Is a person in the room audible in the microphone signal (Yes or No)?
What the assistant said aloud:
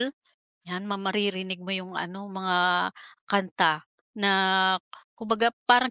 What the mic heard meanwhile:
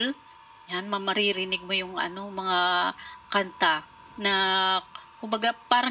No